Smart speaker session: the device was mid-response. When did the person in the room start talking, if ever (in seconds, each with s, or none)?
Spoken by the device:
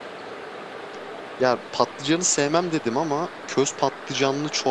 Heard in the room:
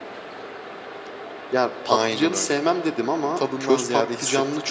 1.9 s